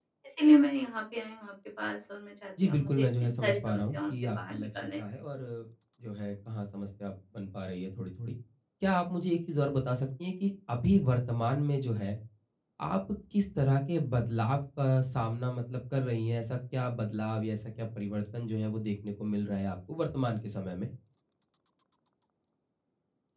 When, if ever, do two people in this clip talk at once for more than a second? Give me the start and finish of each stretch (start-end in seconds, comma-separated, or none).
2.6-5.0